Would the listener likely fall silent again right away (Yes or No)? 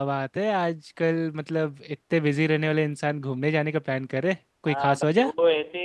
No